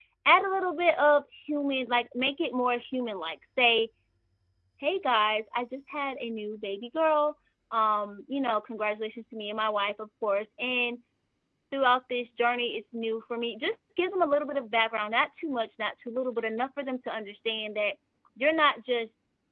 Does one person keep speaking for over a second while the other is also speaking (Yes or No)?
No